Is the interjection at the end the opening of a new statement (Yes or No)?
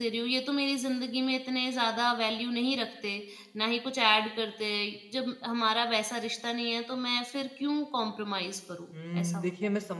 Yes